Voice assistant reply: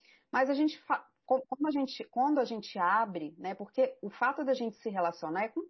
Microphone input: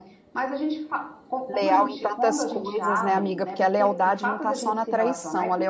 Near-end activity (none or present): present